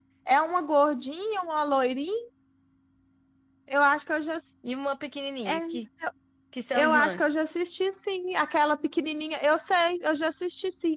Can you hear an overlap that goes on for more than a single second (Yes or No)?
No